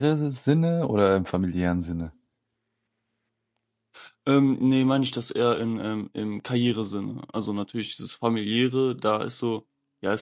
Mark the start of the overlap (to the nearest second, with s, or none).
none